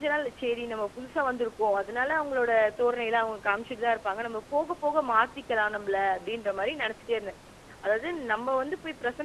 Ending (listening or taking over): listening